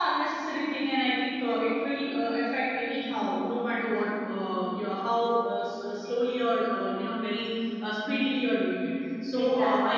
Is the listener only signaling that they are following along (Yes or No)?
Yes